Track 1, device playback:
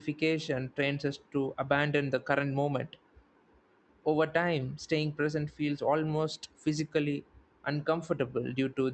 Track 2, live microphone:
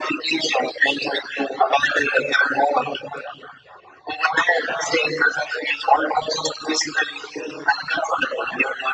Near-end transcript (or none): none